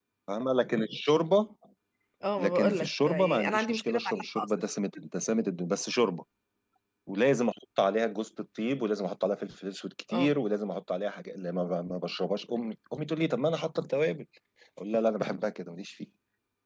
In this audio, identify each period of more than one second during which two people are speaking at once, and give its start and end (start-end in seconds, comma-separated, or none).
2.4-4.5